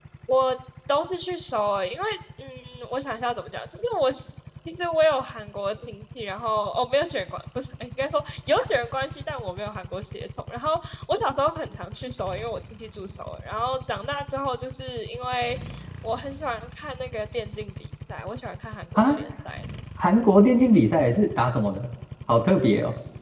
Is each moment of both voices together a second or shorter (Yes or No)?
Yes